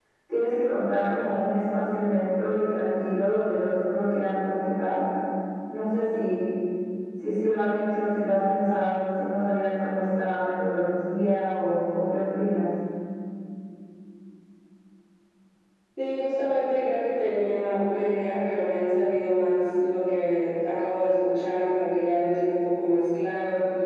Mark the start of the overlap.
none

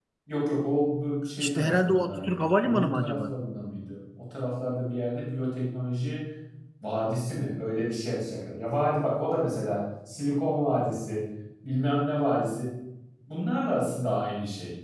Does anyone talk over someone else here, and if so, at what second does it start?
1.4 s

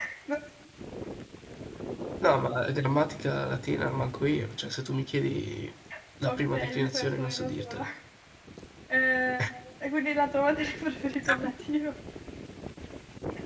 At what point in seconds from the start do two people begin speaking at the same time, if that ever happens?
6.2 s

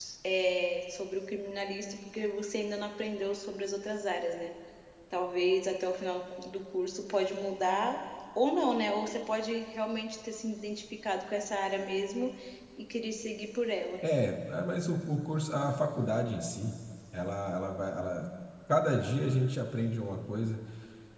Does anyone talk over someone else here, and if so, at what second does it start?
none

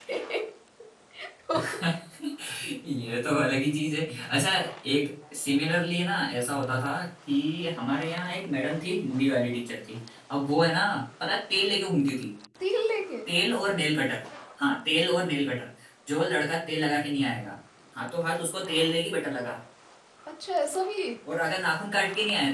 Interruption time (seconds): none

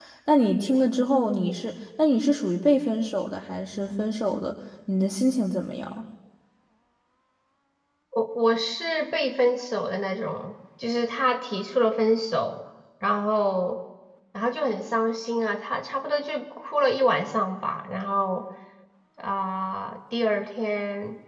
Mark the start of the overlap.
none

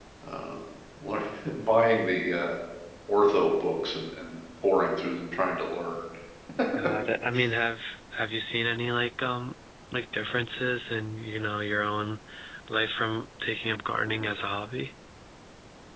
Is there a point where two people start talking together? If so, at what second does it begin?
none

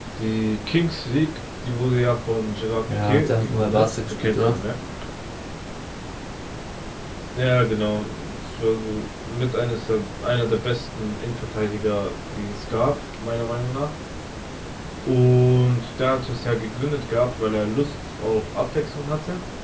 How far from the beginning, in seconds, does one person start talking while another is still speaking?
2.9 s

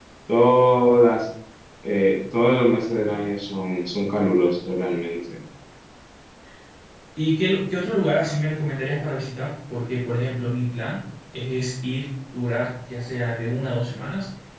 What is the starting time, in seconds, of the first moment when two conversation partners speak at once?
none

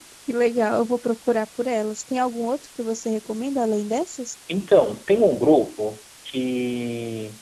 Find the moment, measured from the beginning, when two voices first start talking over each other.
none

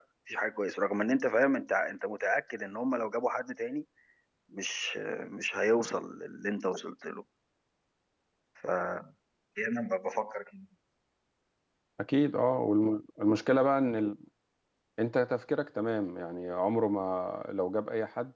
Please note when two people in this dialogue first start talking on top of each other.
none

